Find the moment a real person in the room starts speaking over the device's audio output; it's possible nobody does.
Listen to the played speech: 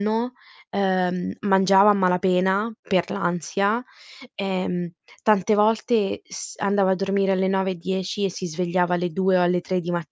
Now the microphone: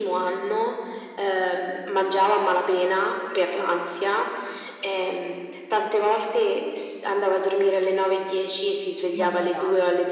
9.1 s

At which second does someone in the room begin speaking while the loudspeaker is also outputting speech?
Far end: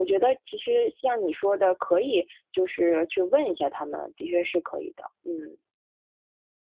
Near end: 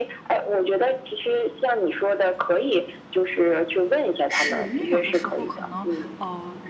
4.3 s

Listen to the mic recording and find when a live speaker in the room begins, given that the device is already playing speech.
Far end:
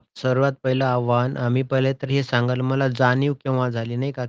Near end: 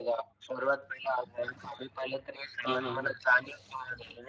2.6 s

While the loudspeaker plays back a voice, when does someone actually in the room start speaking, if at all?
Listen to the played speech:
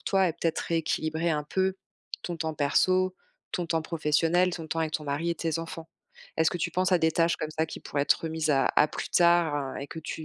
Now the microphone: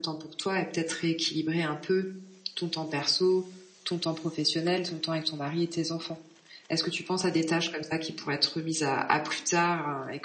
none

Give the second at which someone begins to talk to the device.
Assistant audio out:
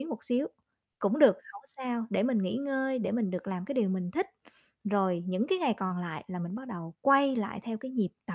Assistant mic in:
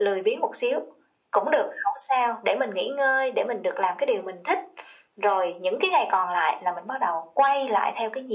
none

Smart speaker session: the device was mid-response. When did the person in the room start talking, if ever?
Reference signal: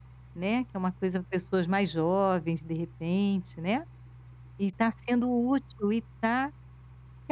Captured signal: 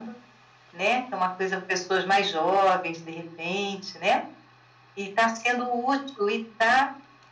none

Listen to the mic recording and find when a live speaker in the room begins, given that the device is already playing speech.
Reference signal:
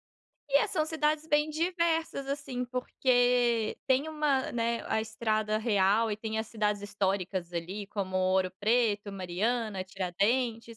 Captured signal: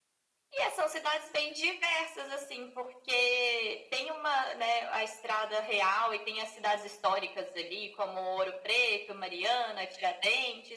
none

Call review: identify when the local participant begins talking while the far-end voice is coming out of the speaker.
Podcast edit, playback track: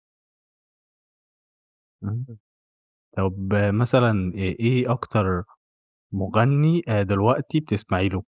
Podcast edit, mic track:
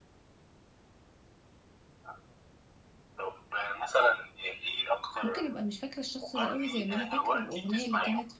5.2 s

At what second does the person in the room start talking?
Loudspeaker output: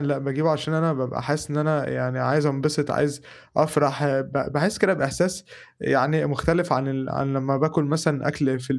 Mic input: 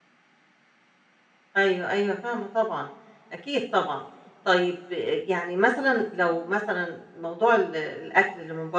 1.6 s

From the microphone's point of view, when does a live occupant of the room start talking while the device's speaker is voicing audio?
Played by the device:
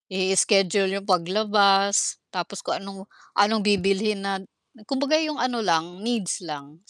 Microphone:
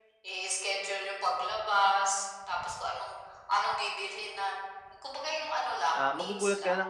5.9 s

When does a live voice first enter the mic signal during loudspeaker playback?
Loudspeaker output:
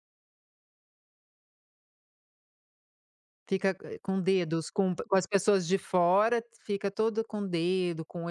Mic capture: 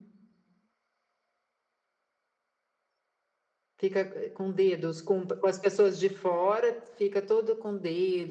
none

